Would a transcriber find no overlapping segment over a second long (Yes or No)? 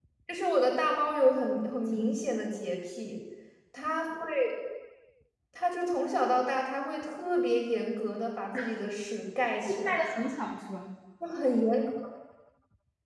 Yes